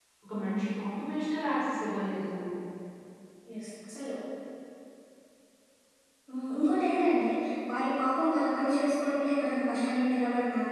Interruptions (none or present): none